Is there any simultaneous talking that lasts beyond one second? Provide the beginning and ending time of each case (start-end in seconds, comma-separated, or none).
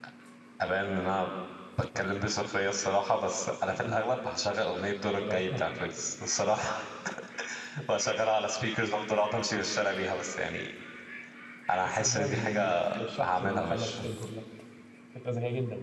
11.8-13.9